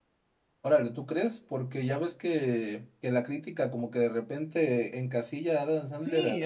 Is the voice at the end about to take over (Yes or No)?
Yes